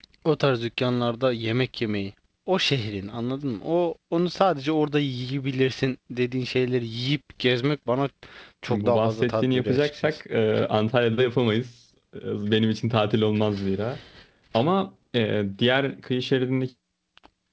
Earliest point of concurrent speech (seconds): 8.7 s

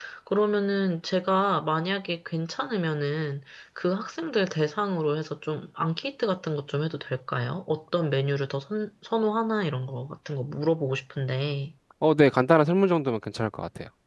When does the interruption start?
none

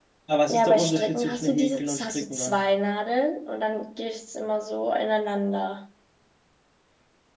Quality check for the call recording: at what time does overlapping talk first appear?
0.5 s

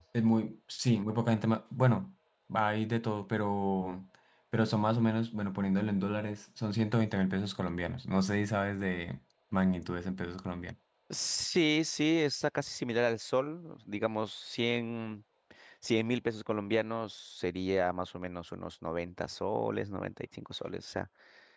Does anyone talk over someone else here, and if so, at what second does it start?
none

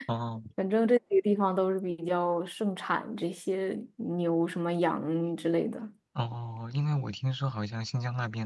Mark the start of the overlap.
none

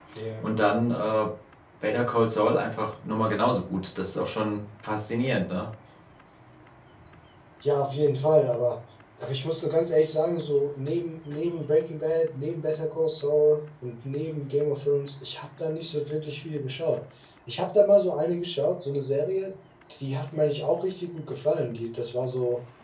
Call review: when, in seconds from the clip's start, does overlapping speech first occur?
none

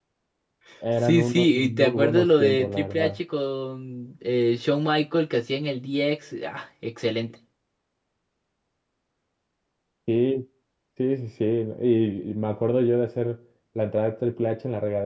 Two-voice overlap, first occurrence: 1.0 s

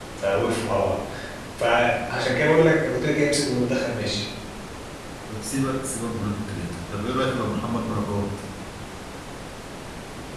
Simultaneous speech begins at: none

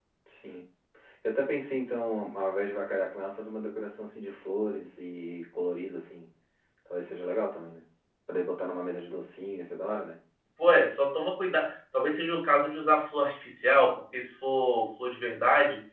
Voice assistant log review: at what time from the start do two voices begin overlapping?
none

